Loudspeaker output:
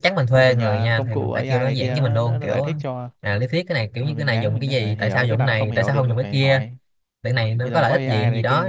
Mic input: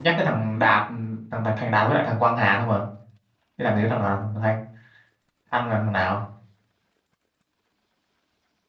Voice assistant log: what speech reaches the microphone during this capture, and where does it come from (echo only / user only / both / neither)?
user only